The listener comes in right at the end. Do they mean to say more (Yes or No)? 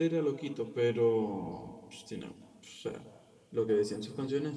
No